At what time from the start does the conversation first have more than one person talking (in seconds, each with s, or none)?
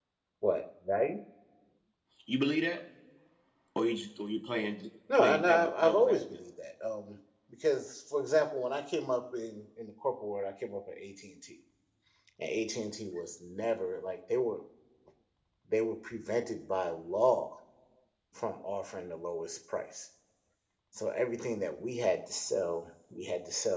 5.1 s